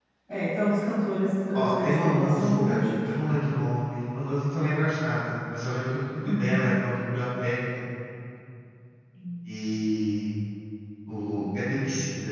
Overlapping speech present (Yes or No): Yes